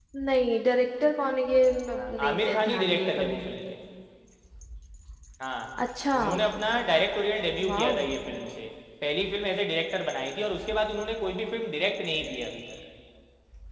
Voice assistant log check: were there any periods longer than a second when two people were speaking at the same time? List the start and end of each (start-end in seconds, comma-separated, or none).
2.0-3.4